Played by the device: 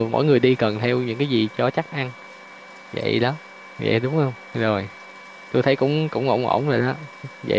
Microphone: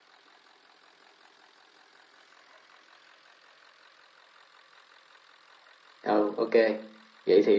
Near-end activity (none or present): present